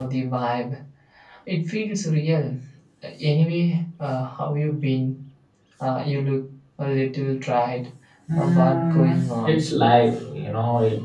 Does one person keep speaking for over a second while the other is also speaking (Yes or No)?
Yes